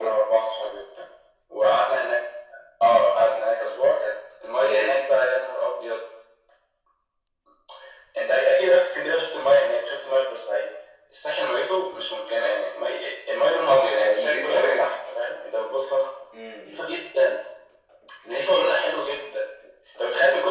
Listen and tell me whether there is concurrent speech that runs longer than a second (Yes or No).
Yes